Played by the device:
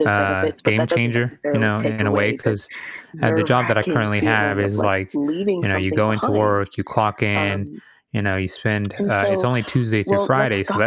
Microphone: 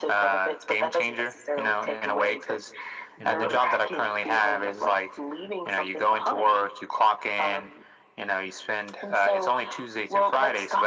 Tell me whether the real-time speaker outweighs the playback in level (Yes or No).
No